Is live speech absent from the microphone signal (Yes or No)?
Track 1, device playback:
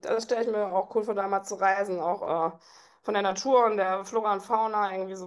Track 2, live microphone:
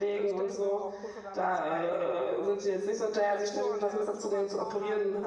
No